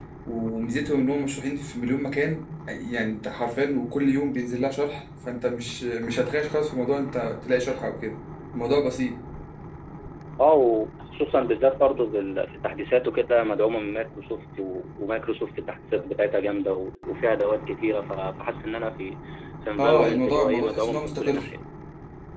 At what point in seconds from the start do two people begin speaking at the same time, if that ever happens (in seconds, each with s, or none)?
19.8 s